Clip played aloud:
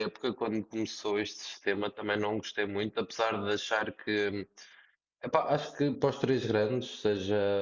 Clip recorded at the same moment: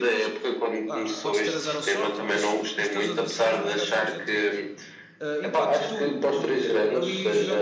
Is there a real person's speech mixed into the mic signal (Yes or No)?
Yes